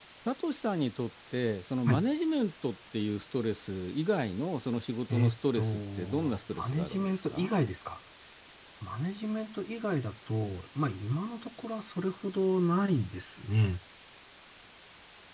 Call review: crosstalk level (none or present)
present